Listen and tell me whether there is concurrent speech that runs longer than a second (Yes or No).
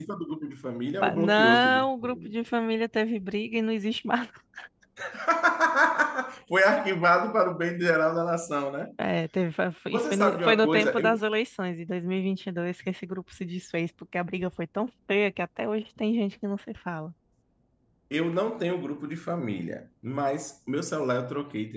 Yes